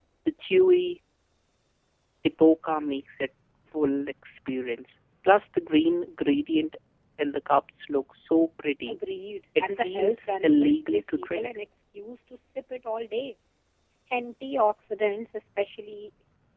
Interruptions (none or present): present